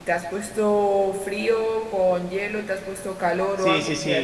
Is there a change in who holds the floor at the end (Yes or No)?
Yes